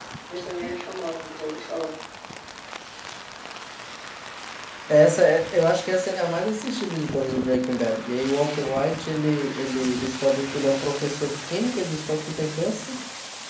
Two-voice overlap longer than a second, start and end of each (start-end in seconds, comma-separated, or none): none